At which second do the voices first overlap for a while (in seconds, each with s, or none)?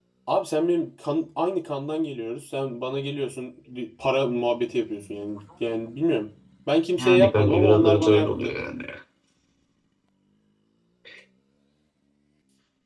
7.0 s